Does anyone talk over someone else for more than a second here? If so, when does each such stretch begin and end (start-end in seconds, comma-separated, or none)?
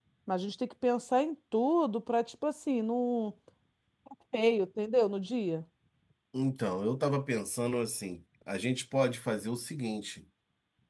none